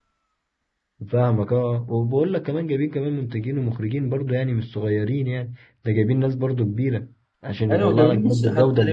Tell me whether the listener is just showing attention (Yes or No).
No